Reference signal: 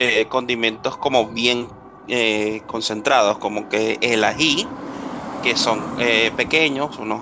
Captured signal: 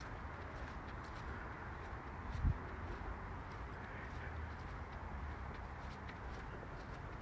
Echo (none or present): none